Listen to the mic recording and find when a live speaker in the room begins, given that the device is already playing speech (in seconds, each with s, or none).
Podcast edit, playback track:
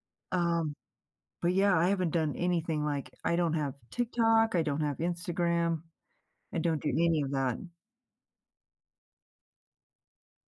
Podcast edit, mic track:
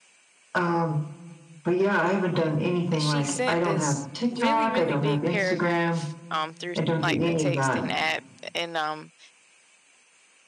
3.0 s